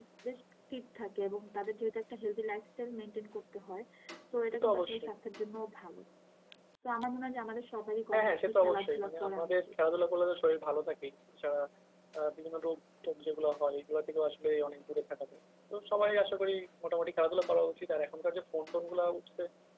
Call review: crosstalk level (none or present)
present